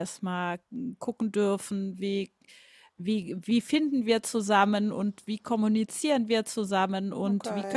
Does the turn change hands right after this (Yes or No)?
No